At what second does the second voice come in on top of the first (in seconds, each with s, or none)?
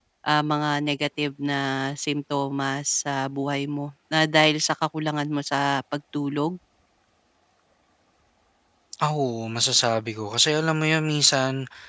none